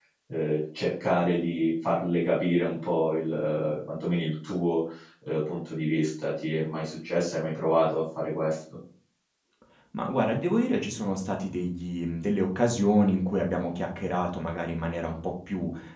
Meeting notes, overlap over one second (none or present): none